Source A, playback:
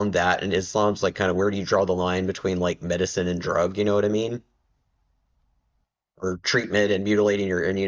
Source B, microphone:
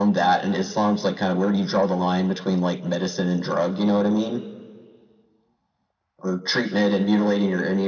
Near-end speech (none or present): none